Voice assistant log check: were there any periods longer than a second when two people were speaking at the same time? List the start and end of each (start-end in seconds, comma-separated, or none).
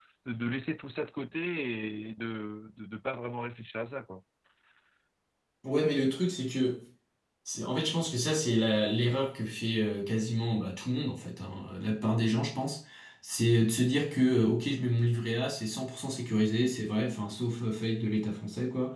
none